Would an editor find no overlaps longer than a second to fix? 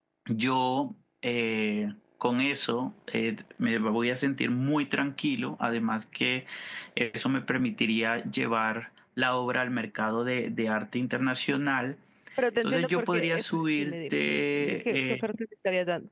No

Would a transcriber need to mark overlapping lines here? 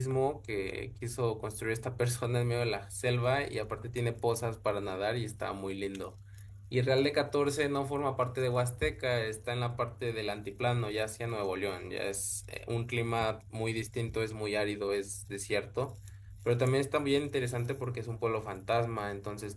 No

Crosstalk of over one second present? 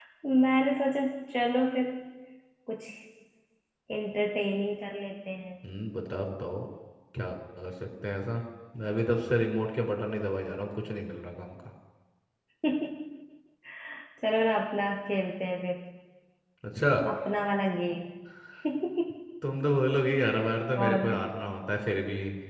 No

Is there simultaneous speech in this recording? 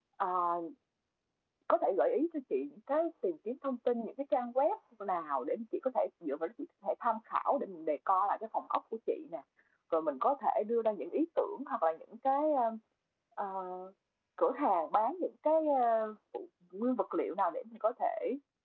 No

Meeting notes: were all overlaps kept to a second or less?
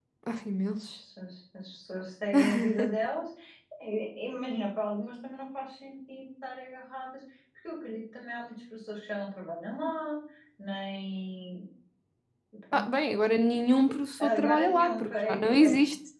No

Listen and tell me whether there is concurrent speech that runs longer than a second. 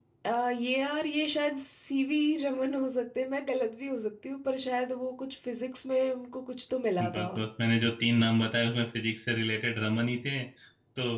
No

